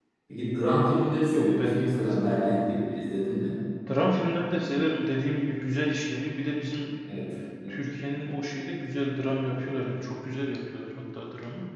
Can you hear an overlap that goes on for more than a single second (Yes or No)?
Yes